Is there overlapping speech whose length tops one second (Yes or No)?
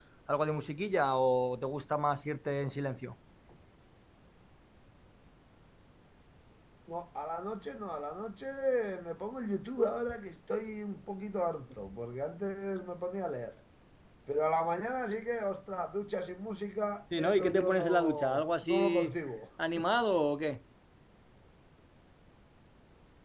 Yes